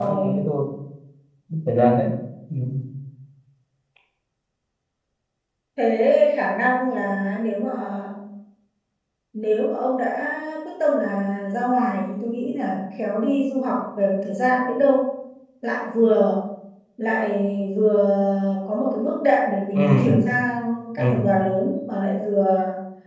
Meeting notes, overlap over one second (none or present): none